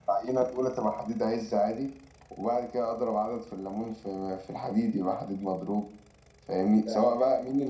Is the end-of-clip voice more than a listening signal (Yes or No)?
No